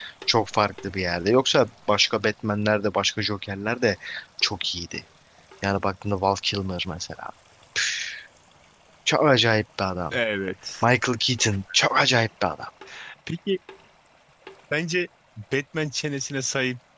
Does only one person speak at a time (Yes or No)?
Yes